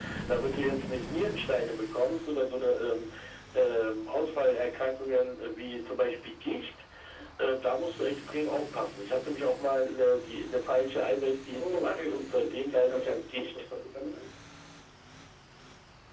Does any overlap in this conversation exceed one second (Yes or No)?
Yes